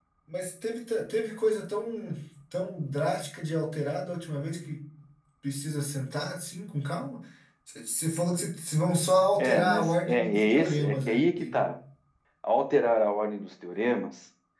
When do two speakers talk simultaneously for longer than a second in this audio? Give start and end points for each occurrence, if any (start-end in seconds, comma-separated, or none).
9.4-11.7